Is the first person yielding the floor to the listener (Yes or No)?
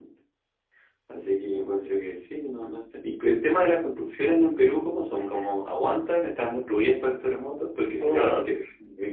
No